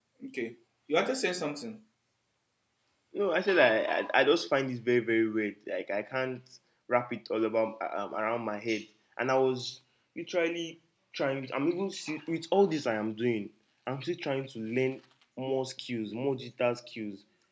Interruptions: none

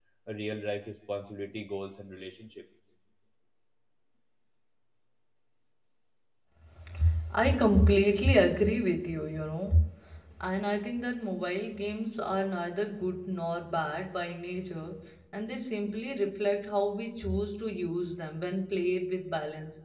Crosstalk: none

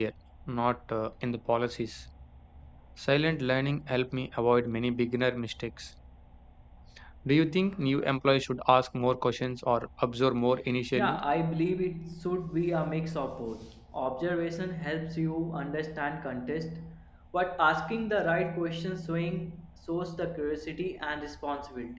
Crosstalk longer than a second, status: none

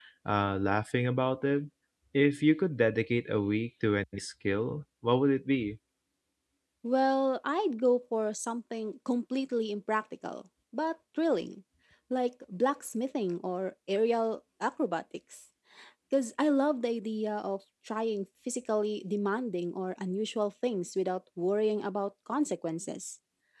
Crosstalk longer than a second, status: none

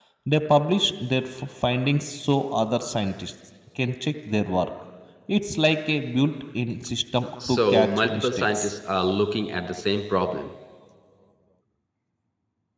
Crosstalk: present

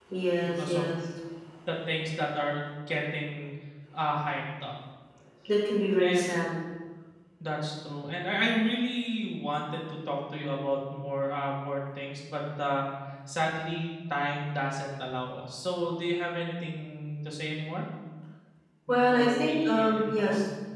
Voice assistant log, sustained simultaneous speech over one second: present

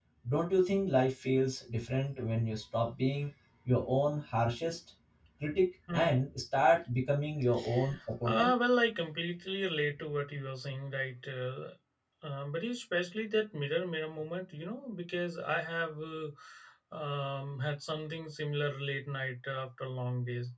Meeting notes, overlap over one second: none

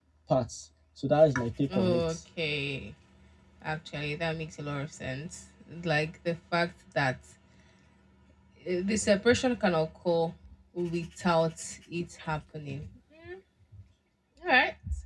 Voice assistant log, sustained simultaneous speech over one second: none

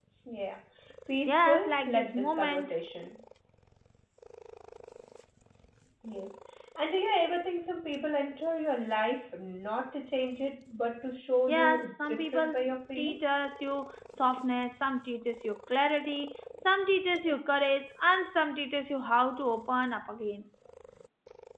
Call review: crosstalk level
present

